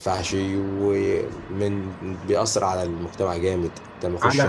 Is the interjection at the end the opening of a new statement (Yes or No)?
No